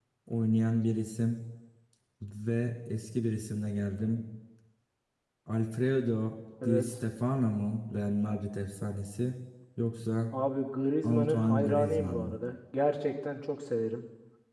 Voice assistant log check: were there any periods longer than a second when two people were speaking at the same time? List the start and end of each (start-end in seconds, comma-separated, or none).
11.1-12.3